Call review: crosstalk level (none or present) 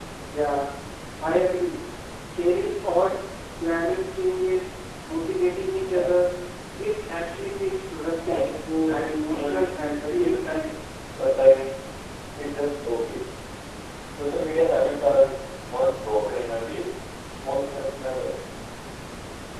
present